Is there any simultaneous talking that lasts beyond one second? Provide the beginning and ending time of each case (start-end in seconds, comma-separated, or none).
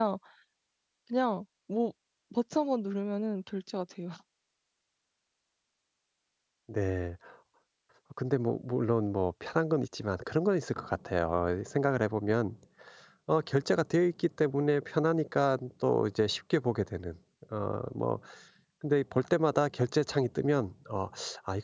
none